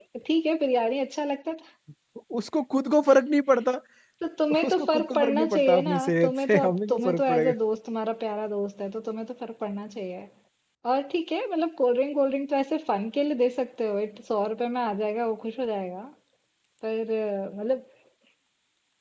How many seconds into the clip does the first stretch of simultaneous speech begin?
4.7 s

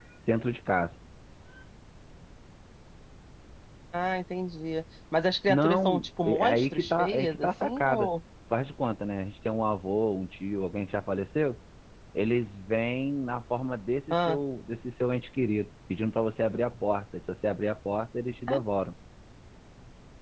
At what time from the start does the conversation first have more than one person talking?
5.5 s

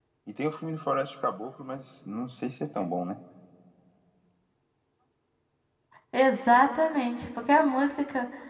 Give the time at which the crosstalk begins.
none

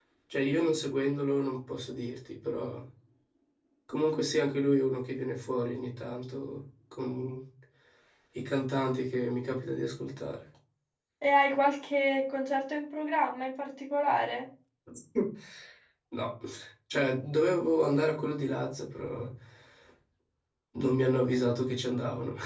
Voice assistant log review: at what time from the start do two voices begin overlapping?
none

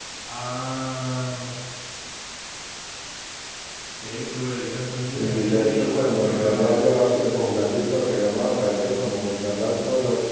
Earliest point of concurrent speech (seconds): 5.0 s

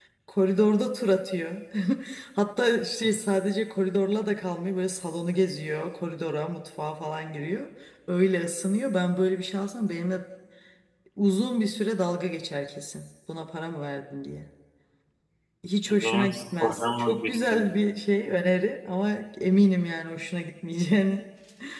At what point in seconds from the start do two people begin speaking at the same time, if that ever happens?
15.9 s

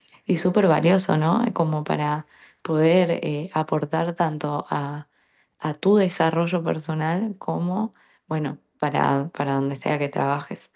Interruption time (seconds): none

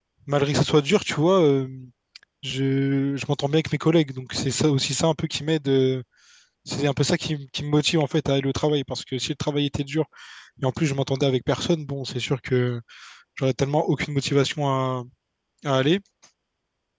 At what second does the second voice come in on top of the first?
none

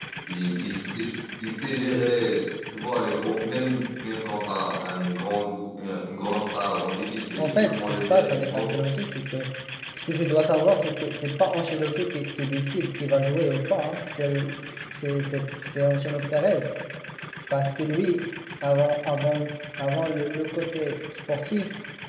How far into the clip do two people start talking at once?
7.4 s

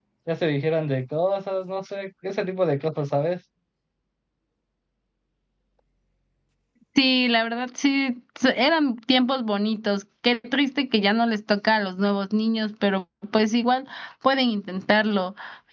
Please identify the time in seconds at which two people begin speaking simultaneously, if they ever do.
none

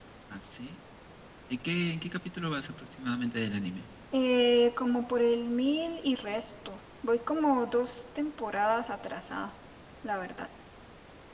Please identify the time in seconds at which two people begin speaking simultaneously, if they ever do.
none

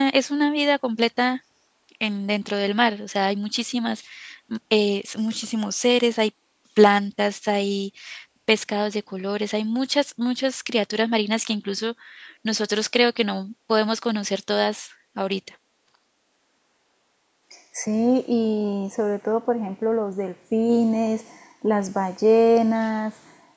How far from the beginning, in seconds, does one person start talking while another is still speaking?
none

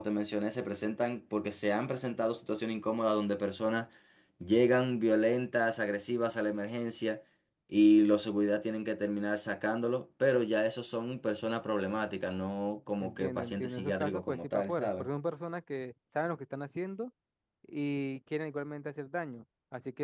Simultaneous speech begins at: 13.0 s

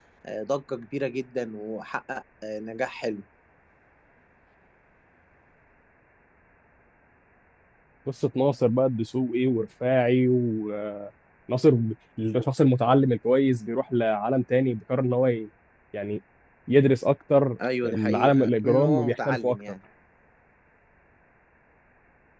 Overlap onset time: 17.6 s

